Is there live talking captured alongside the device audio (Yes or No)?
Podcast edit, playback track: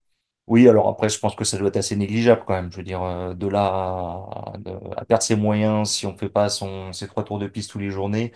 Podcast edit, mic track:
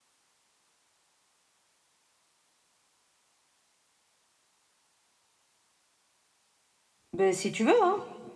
Yes